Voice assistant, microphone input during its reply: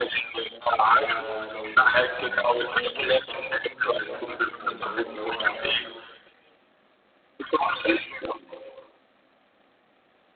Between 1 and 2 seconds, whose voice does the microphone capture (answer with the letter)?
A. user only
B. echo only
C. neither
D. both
D